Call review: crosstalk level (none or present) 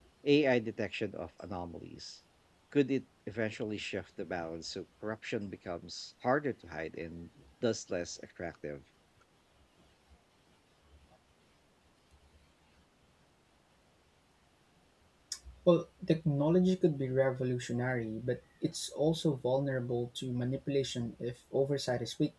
none